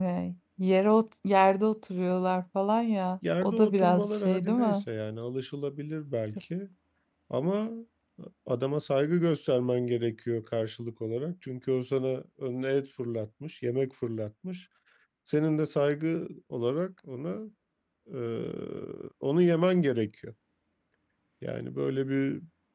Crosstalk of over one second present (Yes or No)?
Yes